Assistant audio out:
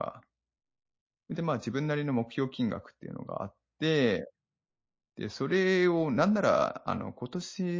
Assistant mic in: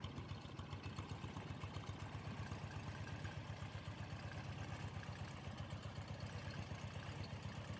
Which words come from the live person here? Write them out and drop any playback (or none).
none